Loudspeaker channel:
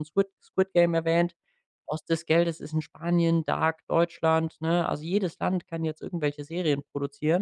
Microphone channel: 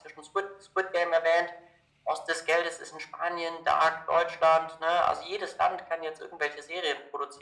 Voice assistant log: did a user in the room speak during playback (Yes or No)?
No